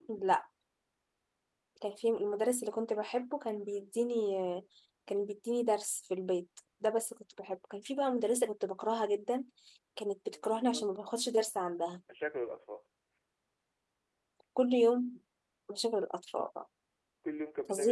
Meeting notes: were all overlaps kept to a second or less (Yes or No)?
Yes